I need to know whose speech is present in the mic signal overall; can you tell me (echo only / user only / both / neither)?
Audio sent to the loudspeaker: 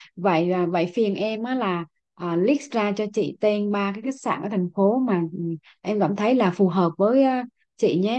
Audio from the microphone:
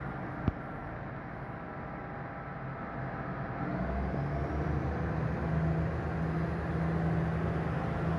neither